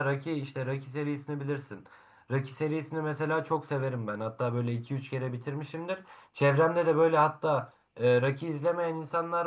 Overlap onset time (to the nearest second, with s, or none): none